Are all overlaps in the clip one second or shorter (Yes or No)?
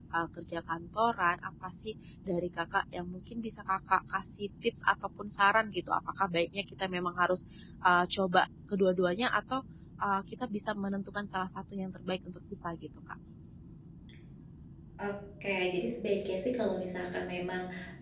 Yes